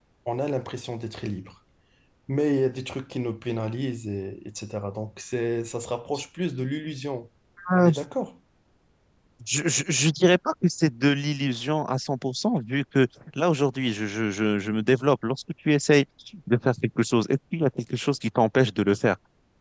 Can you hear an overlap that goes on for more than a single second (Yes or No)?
No